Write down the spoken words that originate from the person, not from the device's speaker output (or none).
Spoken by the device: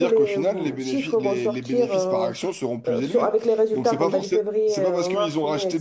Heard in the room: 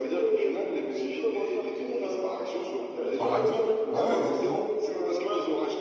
Par exemple, ouais, ouais, exactement.